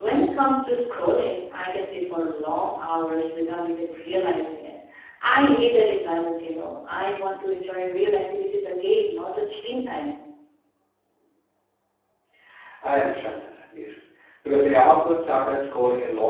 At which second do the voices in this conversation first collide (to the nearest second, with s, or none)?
none